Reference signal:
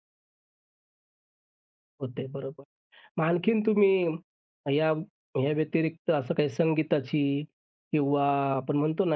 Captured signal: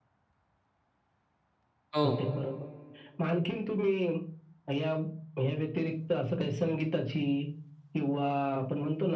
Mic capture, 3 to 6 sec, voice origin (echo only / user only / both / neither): echo only